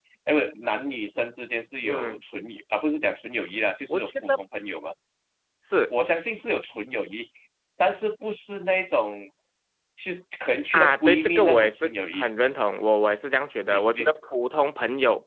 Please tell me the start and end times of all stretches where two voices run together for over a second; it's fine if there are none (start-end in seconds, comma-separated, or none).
10.7-12.3